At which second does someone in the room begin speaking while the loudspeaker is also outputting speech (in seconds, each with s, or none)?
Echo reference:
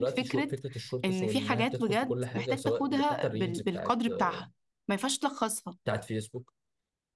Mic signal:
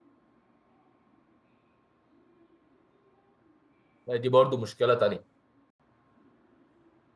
4.1 s